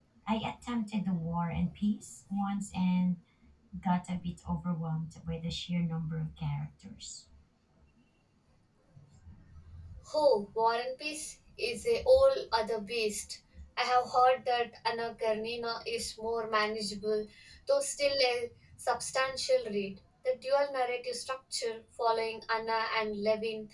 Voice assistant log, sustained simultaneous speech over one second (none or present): none